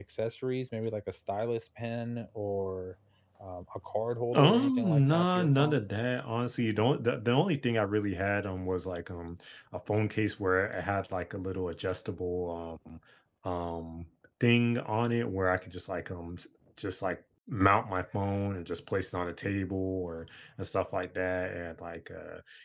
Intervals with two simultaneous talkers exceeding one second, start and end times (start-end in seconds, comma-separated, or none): 4.3-5.8